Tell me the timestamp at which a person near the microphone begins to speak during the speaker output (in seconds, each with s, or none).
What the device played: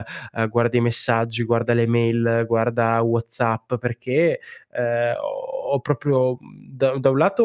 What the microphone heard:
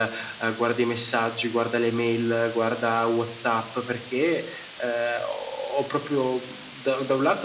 none